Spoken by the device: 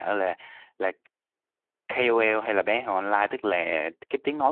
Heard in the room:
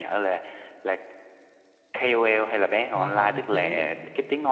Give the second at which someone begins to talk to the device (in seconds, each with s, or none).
2.9 s